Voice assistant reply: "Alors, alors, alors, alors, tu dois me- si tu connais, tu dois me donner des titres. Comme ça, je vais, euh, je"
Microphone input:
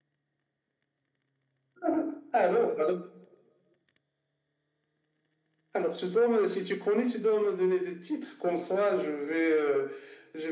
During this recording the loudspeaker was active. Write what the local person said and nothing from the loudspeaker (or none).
none